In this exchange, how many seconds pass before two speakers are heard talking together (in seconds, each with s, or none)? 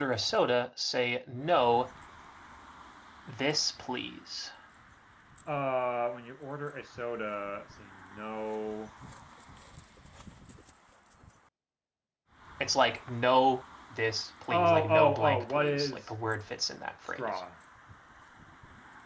14.5 s